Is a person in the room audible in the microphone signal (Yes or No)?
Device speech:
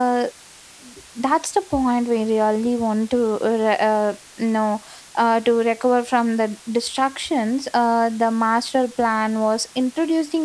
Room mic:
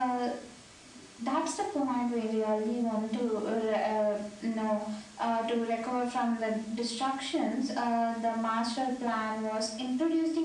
No